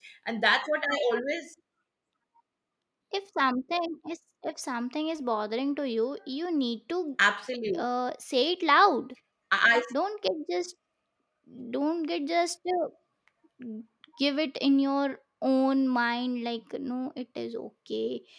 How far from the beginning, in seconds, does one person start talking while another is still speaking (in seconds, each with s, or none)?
none